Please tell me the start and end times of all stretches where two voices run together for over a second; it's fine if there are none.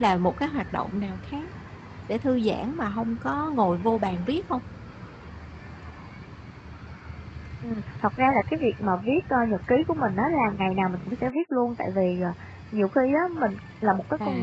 none

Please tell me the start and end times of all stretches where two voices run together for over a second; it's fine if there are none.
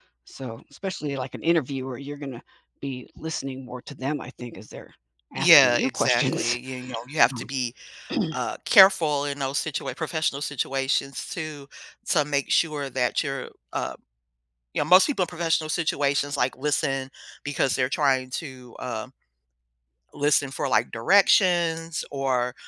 5.4-6.6

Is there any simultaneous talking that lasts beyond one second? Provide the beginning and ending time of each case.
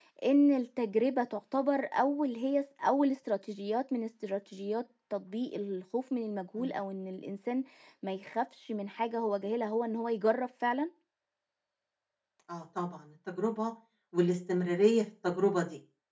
none

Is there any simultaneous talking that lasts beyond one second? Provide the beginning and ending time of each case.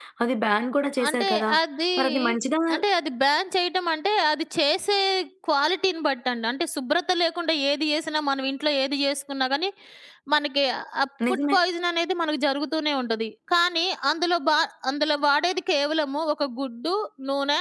none

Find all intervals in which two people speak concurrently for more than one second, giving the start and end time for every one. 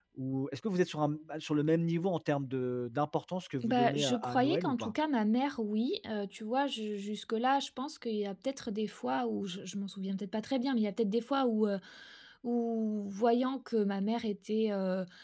3.6-4.9

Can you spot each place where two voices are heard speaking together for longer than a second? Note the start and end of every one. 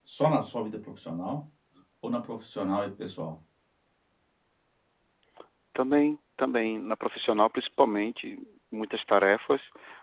none

